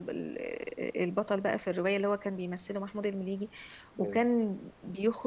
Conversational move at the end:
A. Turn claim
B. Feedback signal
B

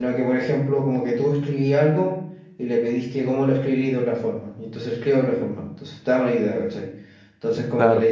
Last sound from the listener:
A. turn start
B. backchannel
B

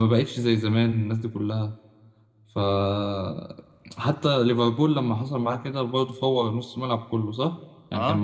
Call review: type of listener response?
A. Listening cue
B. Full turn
A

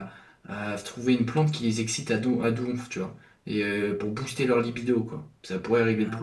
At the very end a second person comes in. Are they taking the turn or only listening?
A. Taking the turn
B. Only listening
A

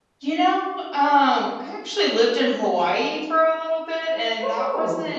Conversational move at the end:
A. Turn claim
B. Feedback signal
B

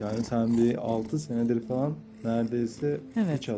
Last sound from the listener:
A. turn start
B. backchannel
A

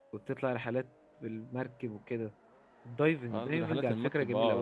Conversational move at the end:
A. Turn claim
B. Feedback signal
A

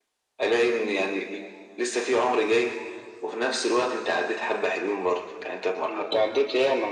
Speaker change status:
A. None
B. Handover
B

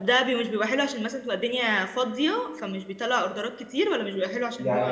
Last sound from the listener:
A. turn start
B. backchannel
A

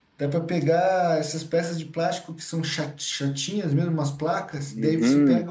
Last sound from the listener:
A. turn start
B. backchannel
B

